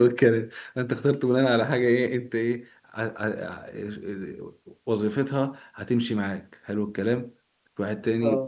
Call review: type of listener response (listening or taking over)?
listening